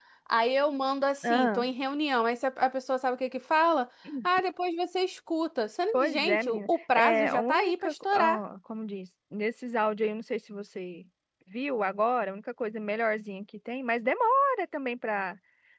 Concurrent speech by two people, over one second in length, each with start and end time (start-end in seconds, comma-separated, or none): 5.9-8.4